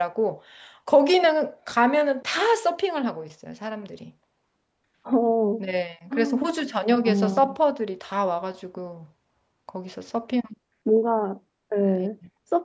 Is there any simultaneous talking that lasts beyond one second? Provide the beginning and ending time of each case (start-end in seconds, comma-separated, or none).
none